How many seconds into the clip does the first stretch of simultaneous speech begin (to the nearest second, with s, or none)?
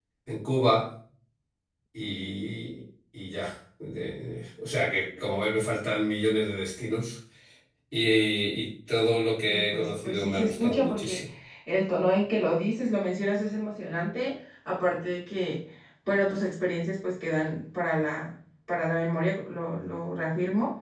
9 s